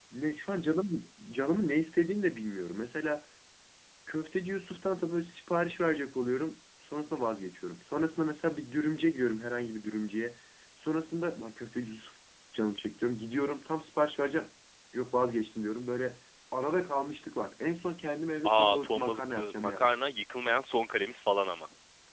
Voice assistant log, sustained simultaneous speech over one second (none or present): present